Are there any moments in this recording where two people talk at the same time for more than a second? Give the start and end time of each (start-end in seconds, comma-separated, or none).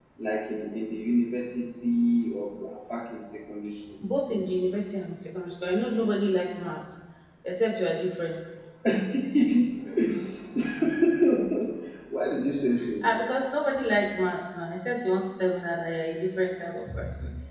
none